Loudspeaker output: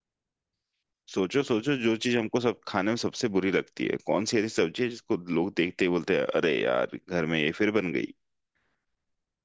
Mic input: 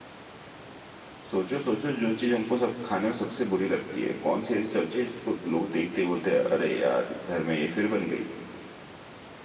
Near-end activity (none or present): none